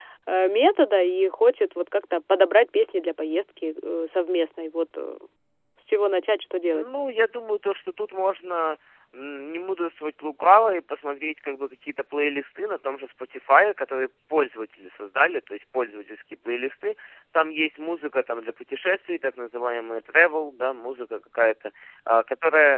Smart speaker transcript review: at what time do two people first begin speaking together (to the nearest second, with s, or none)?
none